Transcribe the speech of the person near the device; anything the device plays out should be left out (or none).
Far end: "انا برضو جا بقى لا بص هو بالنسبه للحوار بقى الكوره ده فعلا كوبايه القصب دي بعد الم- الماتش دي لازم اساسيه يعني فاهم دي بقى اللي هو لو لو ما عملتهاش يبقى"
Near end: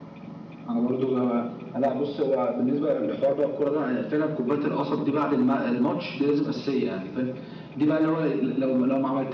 none